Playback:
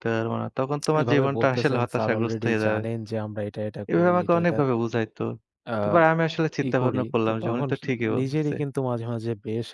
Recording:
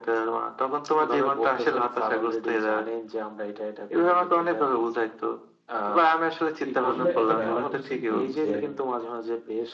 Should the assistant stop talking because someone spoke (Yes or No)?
Yes